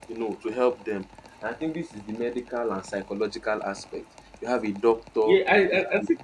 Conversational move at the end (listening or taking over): taking over